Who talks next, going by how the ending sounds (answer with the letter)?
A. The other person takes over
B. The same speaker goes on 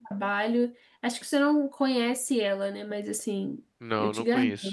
A